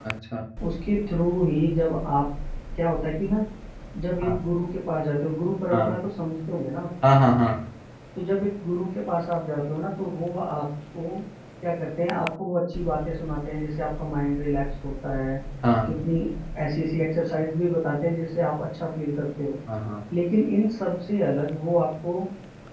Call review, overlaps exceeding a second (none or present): none